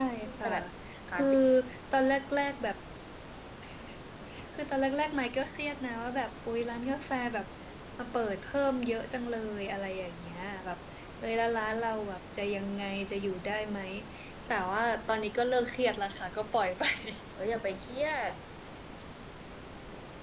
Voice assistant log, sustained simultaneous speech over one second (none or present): none